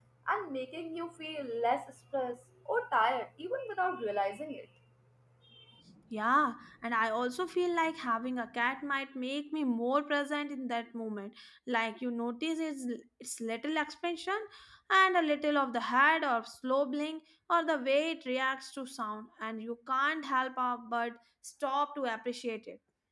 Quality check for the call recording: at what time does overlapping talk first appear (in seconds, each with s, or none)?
none